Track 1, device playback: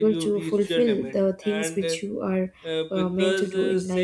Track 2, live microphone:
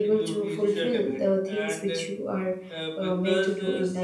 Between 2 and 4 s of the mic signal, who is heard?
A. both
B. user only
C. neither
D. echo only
D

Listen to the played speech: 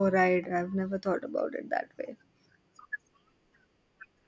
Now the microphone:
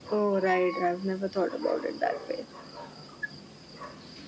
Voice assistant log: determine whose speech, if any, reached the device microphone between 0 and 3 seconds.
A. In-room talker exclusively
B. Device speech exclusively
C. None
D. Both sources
B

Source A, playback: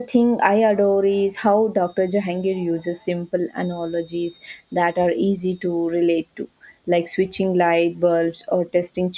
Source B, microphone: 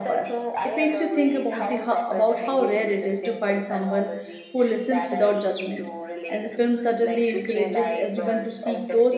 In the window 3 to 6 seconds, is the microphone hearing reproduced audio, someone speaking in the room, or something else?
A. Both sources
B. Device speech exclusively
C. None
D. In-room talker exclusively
A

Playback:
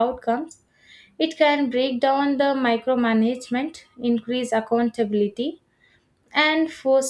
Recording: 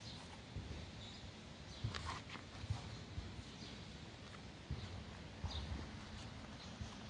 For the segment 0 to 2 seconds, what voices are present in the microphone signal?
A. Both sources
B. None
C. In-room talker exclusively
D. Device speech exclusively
B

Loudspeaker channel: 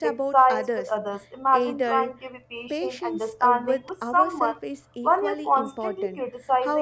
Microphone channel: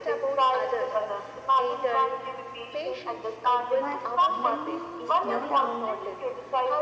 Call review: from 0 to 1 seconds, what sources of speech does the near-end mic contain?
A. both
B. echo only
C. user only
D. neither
B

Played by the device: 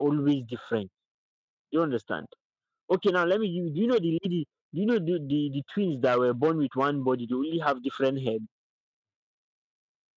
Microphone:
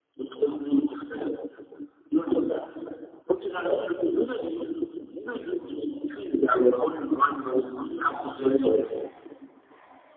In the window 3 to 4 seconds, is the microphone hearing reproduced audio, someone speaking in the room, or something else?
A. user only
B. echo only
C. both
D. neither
B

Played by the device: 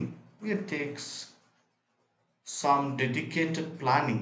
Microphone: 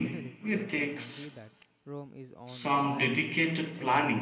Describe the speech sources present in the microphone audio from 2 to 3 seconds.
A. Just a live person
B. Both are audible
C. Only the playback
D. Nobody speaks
B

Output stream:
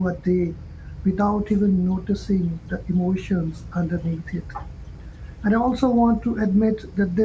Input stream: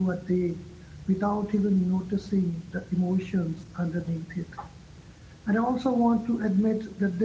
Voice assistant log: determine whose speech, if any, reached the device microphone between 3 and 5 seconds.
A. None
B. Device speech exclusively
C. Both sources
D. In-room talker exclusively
B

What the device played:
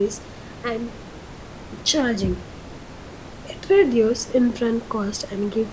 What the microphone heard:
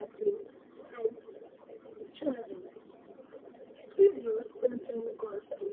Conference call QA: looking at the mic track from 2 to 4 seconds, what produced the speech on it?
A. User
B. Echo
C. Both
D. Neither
B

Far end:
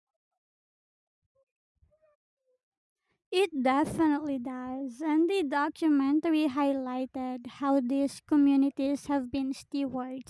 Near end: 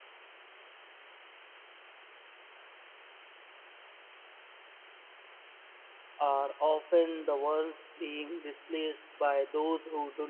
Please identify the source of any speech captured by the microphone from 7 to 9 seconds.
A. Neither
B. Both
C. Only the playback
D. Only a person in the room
D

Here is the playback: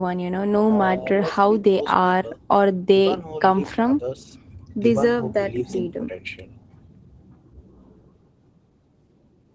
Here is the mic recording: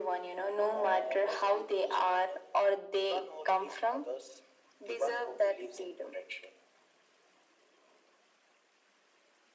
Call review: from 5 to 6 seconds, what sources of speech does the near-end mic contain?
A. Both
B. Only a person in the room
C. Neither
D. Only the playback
D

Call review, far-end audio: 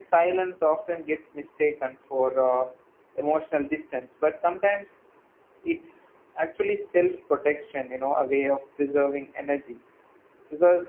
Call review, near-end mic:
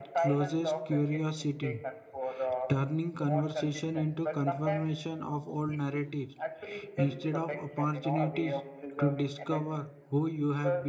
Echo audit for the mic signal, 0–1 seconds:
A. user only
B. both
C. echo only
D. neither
B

